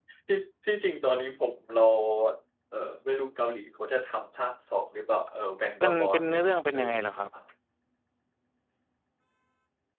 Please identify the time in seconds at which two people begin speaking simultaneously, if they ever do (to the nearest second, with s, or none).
6 s